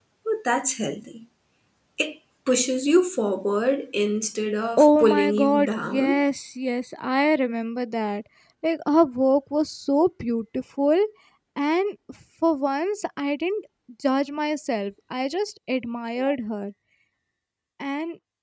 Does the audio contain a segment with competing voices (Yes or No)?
Yes